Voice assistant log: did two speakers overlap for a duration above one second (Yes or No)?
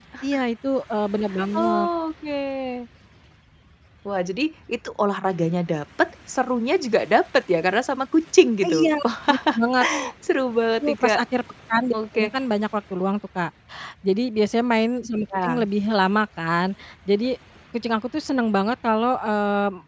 No